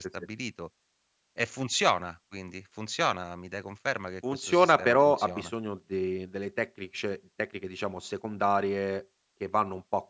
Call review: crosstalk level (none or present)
present